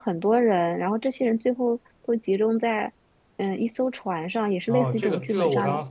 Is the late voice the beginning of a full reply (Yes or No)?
Yes